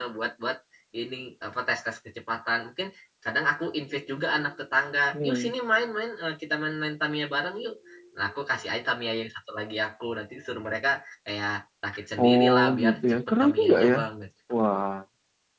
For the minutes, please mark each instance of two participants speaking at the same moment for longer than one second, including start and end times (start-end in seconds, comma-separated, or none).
12.2-14.0